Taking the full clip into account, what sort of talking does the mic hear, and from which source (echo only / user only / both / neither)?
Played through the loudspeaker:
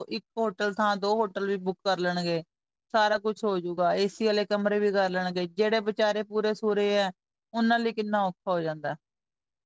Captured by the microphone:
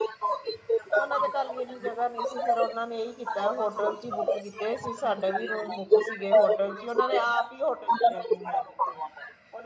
both